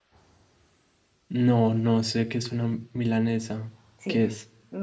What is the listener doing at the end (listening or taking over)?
taking over